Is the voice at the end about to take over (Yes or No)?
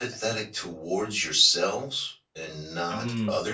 No